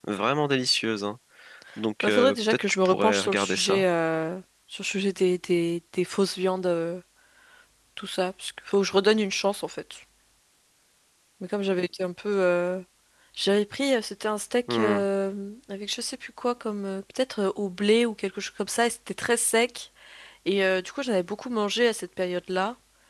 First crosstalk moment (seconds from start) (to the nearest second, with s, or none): 2 s